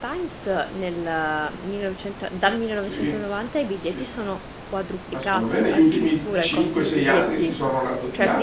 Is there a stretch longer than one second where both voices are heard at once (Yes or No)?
Yes